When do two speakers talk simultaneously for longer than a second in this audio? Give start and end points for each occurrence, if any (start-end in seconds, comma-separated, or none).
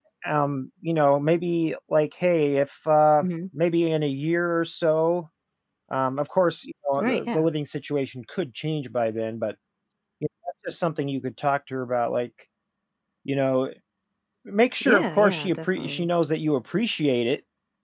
14.8-16.1